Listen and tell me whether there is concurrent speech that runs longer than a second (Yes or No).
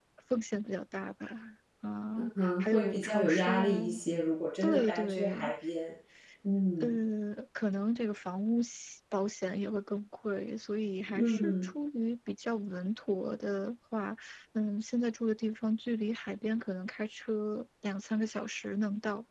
Yes